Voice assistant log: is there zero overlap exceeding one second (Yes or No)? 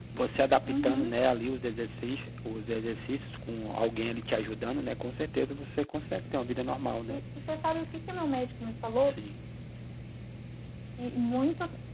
Yes